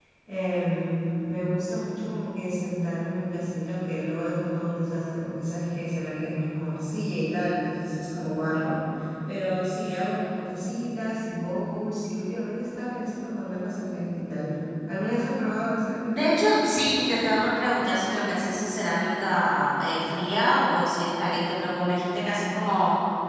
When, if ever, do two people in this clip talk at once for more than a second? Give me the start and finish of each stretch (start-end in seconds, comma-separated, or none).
none